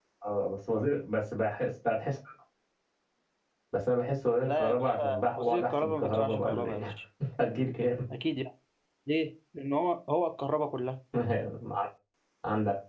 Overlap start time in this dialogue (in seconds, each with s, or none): 4.4 s